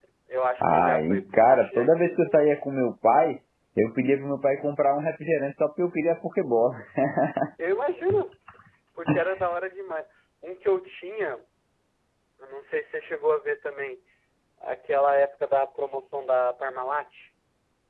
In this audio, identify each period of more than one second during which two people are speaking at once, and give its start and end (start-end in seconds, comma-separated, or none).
0.6-2.6